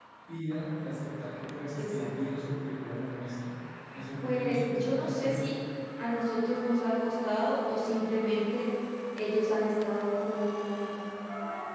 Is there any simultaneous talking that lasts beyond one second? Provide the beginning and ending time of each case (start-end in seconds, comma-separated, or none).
4.2-5.5